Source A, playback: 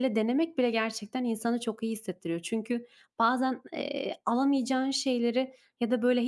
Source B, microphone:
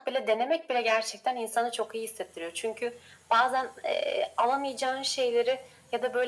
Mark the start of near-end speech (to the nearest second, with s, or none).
none